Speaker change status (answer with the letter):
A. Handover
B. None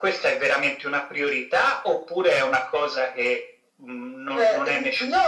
A